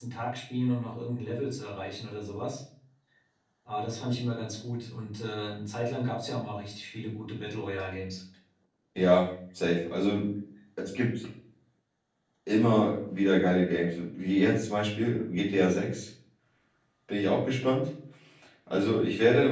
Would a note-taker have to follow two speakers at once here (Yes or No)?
No